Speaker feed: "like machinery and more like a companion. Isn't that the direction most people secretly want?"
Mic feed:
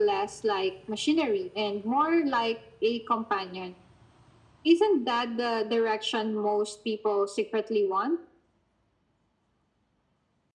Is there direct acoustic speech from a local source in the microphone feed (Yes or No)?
No